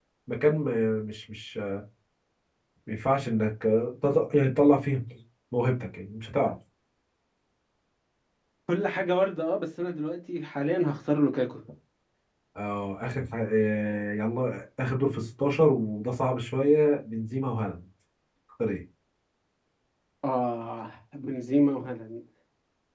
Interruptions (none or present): none